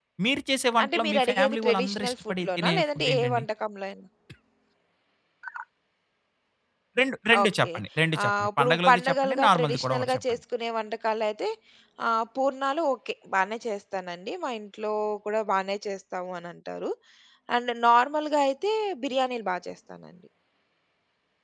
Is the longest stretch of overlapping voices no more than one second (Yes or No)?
No